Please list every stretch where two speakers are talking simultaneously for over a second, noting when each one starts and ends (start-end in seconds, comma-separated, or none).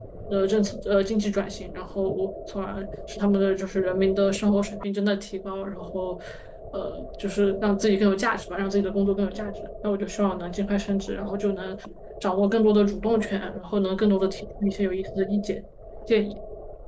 none